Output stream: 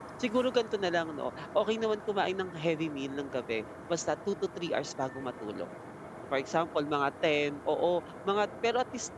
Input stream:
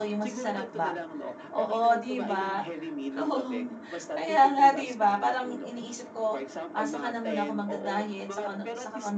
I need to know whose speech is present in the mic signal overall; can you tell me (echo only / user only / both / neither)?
both